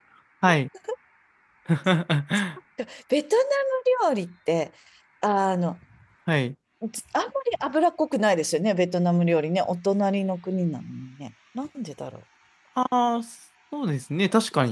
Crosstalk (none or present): none